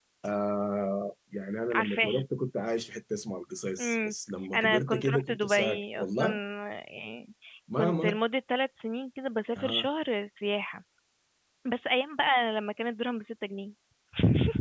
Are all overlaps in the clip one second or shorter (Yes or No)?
No